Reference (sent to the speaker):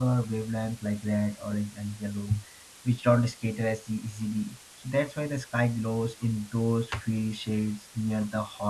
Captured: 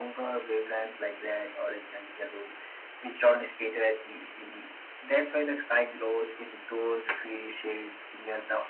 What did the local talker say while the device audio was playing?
none

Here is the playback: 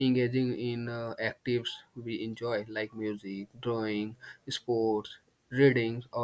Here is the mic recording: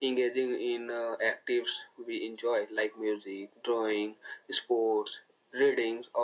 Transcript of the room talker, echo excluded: none

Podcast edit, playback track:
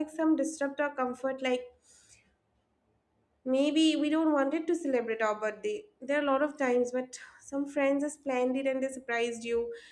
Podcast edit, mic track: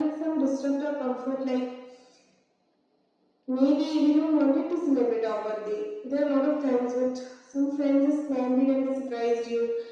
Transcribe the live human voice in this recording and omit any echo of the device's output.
none

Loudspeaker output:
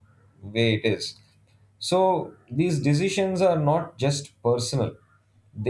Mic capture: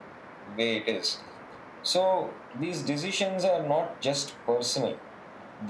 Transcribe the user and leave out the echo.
none

